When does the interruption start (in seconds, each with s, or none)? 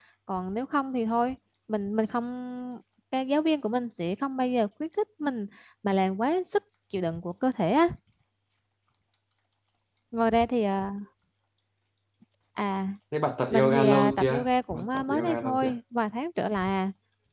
13.5 s